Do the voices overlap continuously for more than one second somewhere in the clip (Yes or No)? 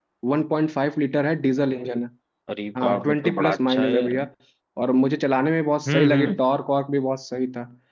Yes